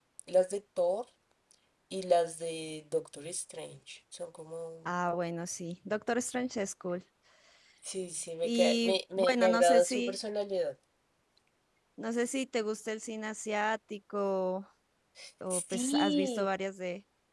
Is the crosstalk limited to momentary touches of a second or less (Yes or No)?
No